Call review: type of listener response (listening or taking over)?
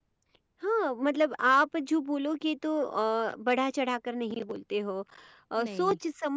listening